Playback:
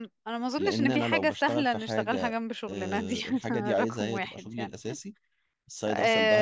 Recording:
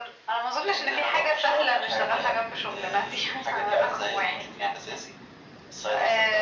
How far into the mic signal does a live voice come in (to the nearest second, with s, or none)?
none